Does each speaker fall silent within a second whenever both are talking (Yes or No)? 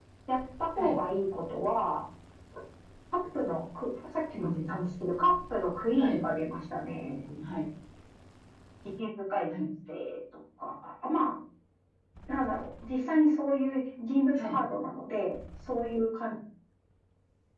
Yes